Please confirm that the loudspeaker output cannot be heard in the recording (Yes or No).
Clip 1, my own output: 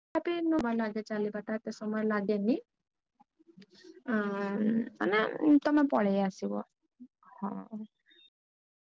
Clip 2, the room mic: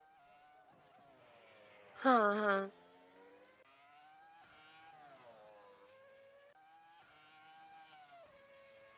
Yes